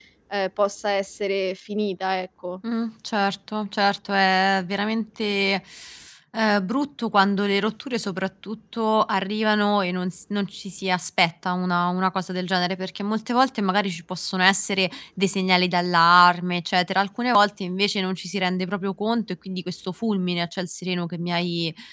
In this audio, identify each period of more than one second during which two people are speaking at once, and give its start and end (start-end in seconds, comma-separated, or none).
none